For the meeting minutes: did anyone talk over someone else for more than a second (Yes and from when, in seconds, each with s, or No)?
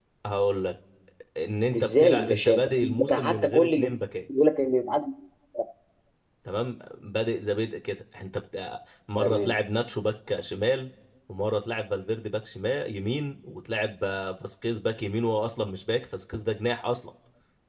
Yes, from 1.8 s